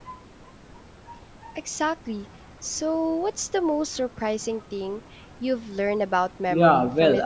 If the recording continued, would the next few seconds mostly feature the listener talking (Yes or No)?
Yes